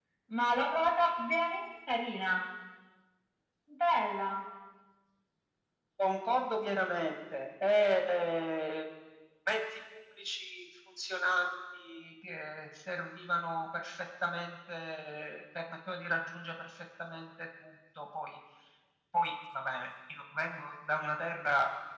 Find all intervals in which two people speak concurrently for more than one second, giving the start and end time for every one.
none

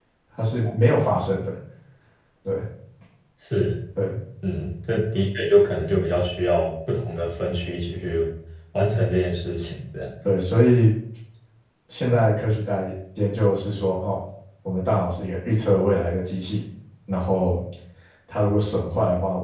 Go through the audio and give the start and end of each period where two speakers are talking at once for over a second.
none

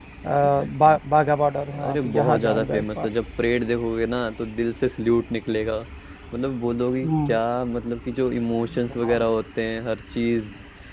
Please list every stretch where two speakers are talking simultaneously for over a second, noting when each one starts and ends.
1.8-3.1

